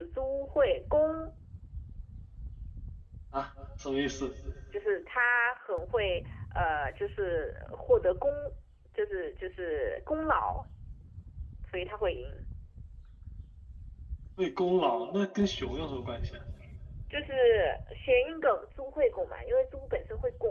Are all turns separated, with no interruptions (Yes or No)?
Yes